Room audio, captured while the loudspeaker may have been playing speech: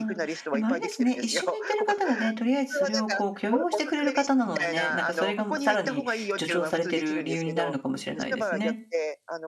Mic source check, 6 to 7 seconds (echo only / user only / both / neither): both